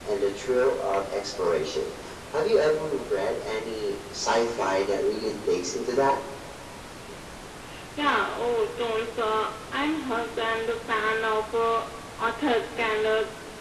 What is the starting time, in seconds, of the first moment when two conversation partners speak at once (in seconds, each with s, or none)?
none